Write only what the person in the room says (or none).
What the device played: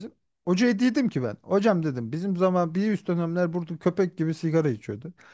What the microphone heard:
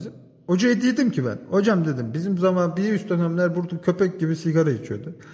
none